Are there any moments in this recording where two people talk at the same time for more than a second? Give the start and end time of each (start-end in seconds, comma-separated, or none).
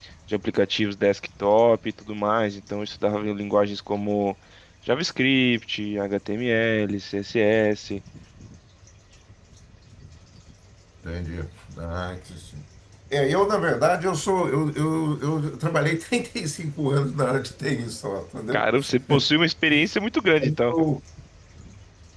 none